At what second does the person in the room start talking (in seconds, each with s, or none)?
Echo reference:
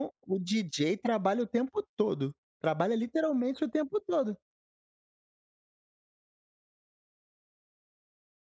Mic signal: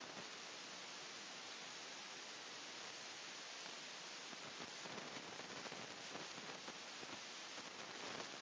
none